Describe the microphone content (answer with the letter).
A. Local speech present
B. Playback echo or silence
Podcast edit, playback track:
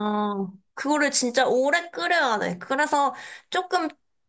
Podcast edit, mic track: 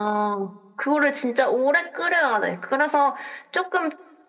B